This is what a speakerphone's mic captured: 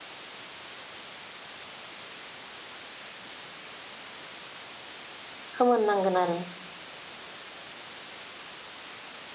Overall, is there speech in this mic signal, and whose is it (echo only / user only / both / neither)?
user only